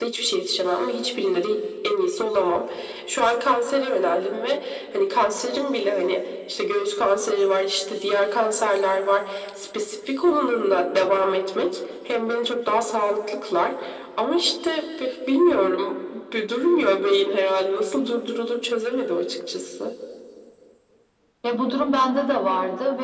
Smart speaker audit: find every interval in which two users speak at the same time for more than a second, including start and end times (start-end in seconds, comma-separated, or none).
none